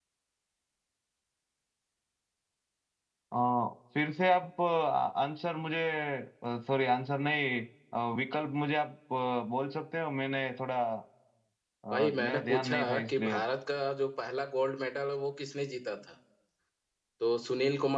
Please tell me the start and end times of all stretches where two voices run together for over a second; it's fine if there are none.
11.9-13.4

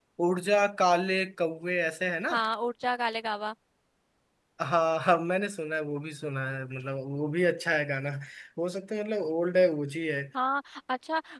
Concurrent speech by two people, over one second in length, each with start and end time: none

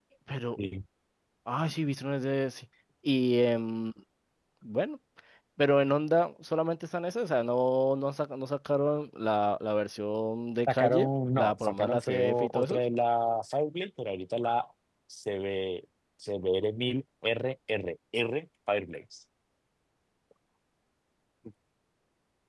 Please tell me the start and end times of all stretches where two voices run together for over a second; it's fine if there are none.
10.7-12.8

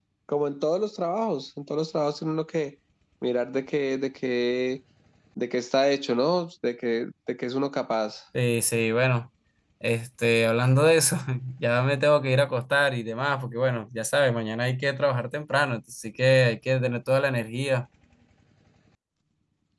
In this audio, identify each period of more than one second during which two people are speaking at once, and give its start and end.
none

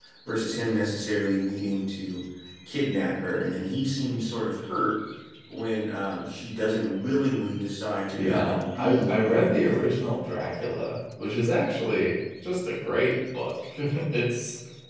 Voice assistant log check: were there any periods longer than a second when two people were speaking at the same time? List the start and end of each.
8.2-9.9

